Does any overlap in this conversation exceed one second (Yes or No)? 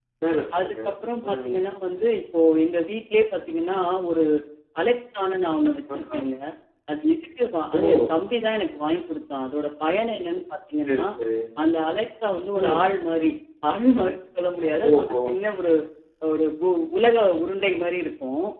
No